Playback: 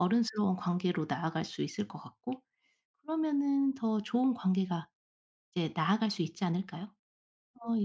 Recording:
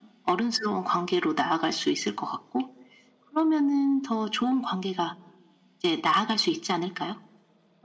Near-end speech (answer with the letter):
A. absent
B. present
A